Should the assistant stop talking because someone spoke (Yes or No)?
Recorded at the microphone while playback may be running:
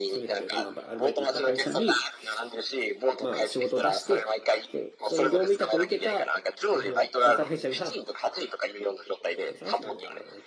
Yes